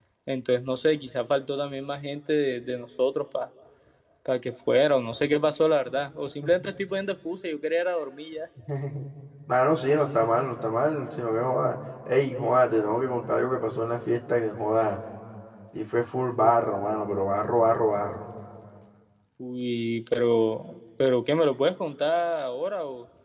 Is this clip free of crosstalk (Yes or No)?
Yes